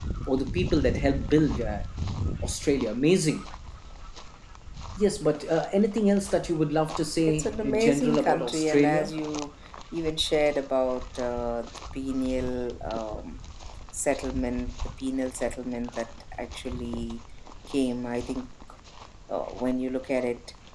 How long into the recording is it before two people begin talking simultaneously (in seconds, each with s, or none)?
7.3 s